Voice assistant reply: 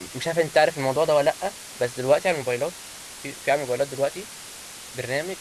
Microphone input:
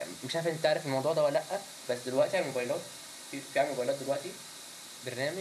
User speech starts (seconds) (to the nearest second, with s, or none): none